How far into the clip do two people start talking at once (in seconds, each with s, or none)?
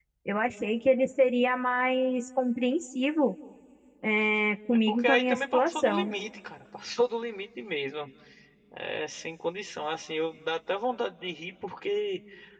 4.7 s